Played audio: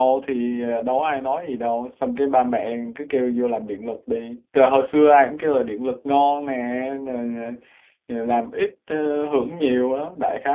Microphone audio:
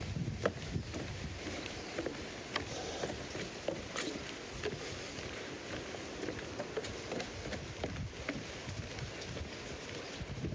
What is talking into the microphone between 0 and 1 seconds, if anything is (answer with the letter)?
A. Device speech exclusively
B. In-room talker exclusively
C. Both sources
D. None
D